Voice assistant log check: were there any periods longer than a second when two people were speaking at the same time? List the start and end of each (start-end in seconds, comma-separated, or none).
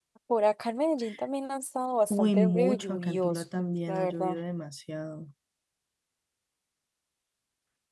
2.1-4.3